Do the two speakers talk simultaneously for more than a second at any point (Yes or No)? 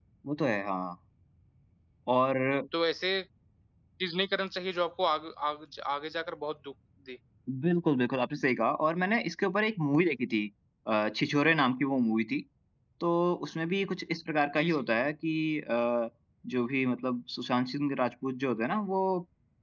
No